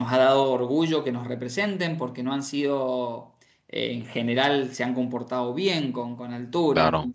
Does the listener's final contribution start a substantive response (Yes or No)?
No